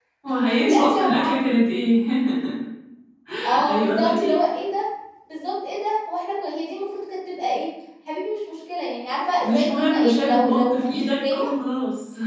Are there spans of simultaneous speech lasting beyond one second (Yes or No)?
Yes